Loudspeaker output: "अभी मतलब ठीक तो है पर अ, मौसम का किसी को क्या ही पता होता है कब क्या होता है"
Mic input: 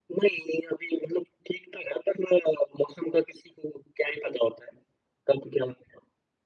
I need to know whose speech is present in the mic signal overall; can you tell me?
echo only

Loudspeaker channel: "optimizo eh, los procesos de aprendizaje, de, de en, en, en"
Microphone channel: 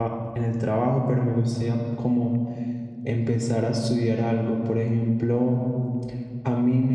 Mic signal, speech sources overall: user only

